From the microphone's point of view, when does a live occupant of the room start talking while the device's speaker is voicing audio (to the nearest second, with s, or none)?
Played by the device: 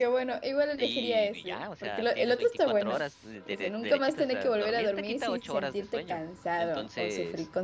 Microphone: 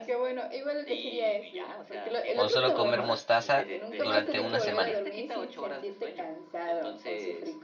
2 s